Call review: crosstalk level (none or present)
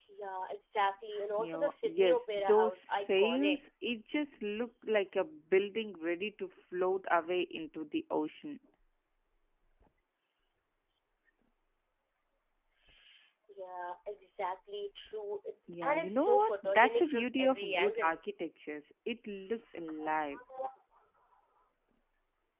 present